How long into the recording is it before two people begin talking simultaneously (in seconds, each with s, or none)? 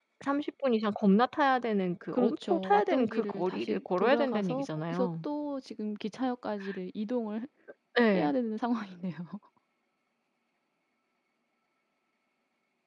2.1 s